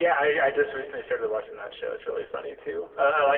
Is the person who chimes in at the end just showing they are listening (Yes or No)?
Yes